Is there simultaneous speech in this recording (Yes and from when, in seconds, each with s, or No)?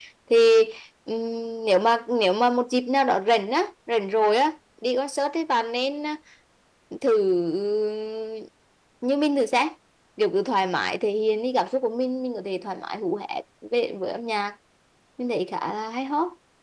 No